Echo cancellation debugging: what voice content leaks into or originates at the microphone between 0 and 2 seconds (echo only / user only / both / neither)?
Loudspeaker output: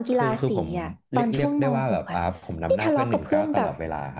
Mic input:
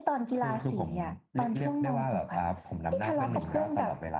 echo only